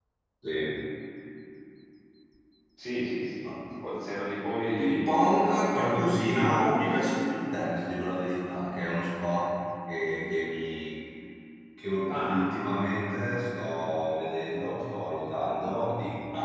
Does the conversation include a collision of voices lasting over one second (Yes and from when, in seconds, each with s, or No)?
Yes, from 4.8 s